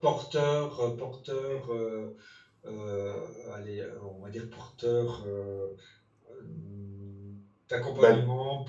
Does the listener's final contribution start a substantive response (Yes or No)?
No